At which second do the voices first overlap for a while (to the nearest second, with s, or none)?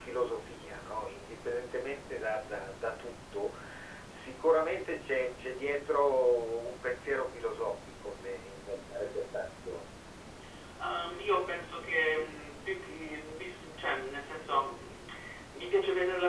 none